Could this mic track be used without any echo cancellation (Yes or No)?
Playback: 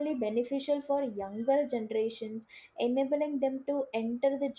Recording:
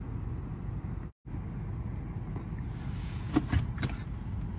Yes